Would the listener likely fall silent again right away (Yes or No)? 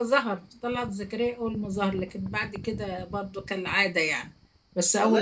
No